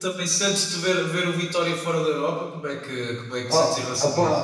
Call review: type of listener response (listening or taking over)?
taking over